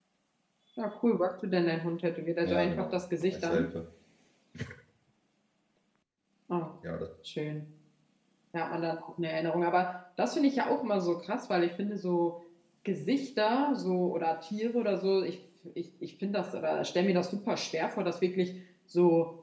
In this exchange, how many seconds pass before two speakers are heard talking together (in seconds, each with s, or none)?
2.4 s